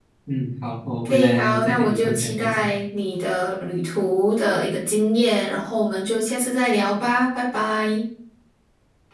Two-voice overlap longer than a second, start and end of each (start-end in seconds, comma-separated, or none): 1.0-2.6